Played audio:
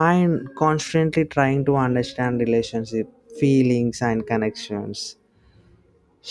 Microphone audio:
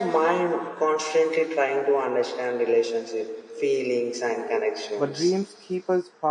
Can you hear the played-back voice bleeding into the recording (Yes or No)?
Yes